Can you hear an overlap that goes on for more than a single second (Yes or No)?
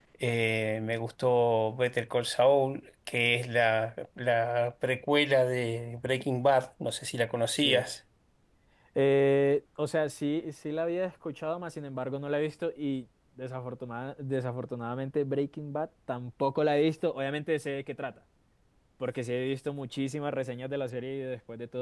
No